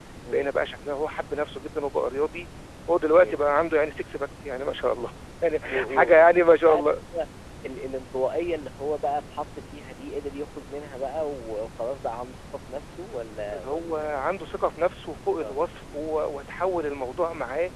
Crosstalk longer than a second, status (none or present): present